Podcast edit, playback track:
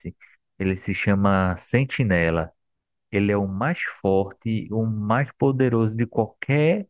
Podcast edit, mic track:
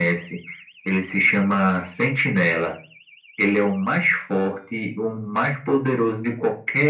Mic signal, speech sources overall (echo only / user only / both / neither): echo only